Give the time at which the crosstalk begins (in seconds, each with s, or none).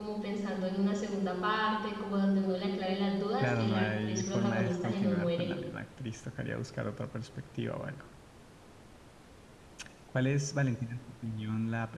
3.4 s